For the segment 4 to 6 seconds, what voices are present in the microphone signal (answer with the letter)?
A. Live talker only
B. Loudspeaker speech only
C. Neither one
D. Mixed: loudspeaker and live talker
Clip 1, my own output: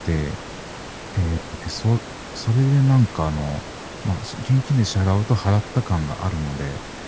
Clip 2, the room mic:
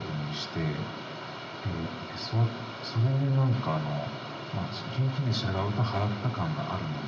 B